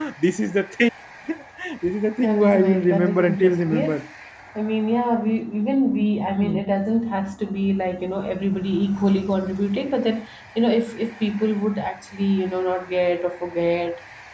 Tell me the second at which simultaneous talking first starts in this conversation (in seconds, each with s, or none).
2.2 s